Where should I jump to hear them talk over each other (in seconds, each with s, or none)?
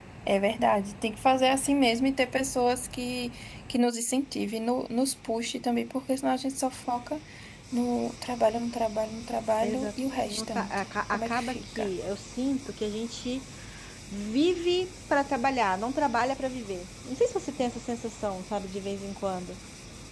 9.6 s